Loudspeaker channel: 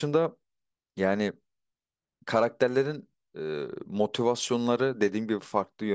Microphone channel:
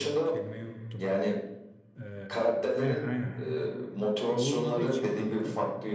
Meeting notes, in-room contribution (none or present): present